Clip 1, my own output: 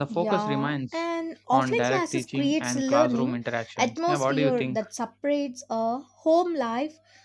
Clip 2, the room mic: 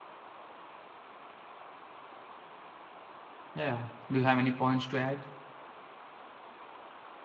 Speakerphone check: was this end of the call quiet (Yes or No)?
No